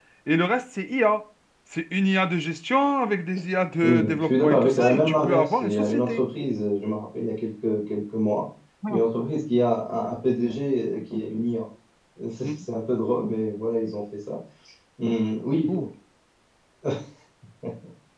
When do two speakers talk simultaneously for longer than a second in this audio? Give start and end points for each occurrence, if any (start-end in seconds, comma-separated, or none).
3.8-6.2